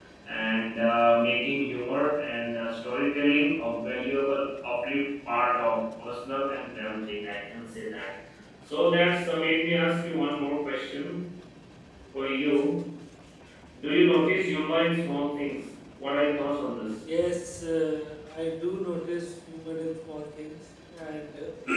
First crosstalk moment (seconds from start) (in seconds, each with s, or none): none